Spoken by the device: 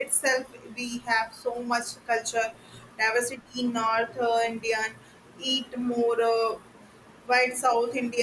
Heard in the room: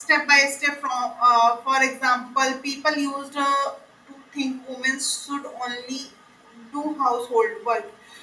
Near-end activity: present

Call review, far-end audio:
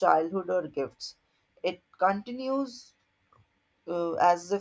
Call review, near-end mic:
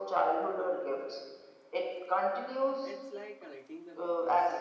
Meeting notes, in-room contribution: present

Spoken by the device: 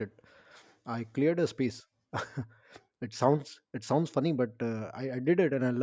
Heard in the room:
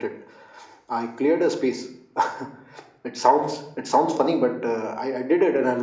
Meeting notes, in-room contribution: none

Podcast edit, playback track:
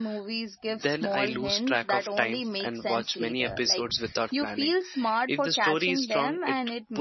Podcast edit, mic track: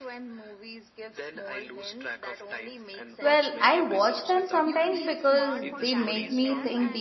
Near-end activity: present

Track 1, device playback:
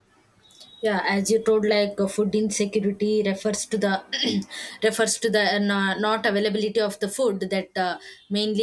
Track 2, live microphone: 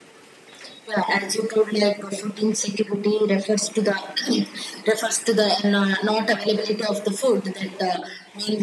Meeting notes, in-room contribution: none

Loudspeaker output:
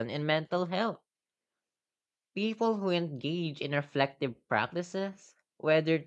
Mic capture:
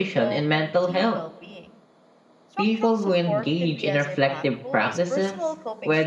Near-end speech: present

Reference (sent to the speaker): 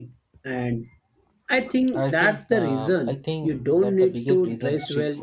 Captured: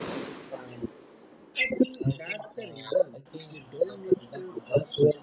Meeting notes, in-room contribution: none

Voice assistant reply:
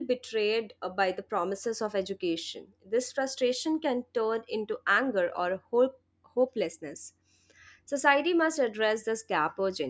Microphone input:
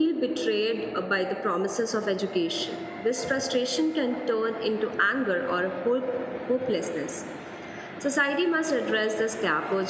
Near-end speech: none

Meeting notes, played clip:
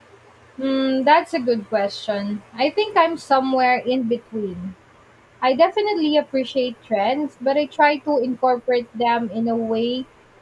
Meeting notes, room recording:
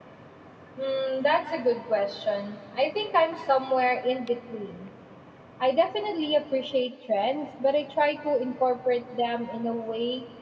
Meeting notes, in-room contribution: none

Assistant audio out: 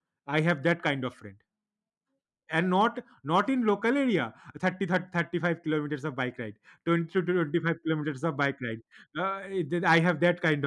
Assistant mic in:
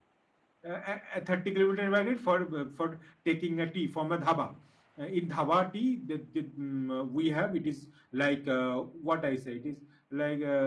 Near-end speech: present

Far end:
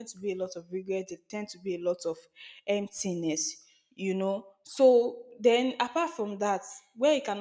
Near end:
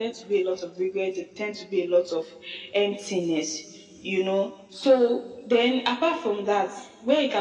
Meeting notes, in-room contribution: none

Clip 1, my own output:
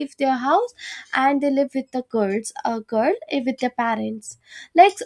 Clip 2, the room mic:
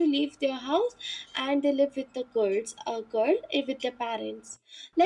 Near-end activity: none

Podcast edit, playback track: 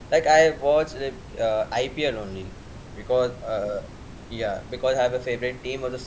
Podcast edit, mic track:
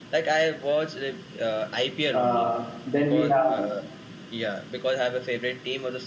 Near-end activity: present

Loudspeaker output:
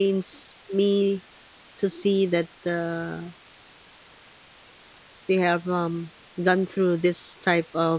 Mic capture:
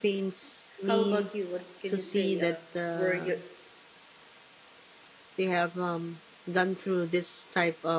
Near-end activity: present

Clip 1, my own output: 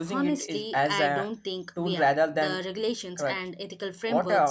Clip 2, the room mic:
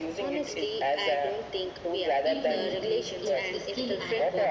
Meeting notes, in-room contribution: present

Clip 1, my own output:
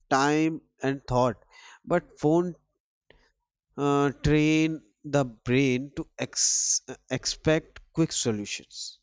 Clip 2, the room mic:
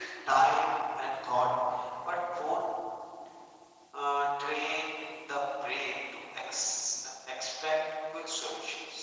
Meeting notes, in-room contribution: none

